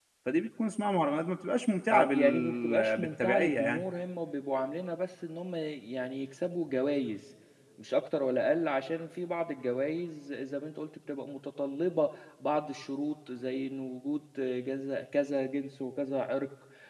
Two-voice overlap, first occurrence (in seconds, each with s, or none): 1.9 s